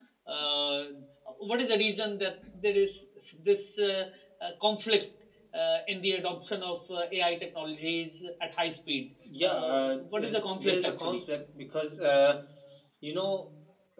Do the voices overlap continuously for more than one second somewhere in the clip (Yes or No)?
Yes